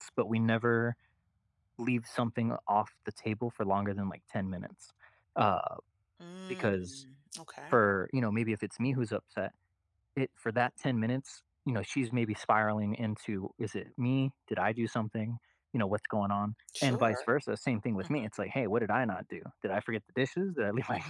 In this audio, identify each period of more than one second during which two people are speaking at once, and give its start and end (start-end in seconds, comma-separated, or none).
none